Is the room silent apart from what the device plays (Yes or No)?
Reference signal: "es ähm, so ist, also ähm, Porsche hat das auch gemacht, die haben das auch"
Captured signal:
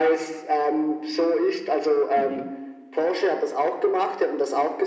No